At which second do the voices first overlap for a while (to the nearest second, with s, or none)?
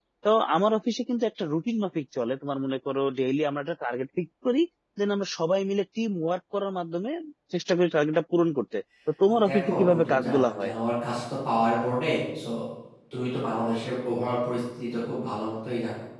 9 s